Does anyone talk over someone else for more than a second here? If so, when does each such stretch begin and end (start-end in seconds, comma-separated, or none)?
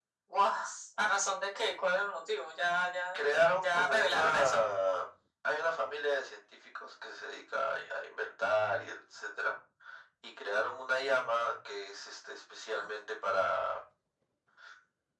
3.1-4.7